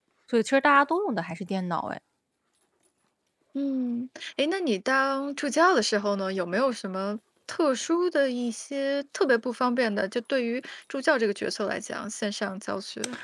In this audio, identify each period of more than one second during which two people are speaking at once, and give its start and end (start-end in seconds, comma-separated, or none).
none